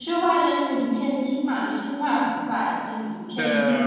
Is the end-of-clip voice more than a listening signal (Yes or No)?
Yes